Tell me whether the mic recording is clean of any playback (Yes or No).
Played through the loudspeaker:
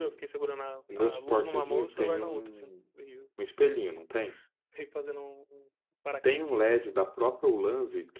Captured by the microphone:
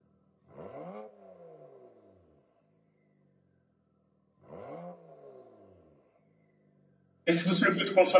Yes